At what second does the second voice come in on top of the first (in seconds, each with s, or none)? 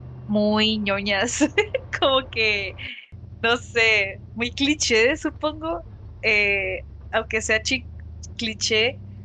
none